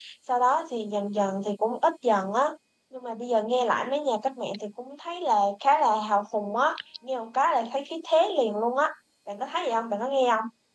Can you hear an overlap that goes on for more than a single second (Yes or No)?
No